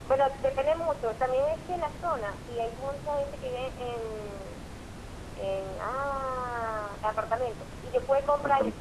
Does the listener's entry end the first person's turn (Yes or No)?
No